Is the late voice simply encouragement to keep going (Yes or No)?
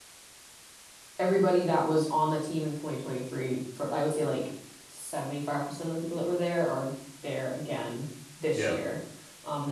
Yes